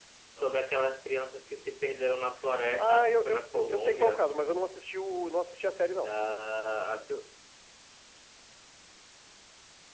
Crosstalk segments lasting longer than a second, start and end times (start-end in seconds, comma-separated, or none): 2.8-4.2